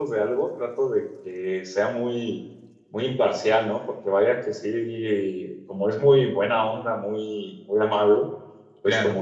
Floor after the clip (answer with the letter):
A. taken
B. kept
B